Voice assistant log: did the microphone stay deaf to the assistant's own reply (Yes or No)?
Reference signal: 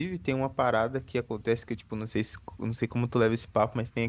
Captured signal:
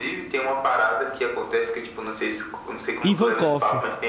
No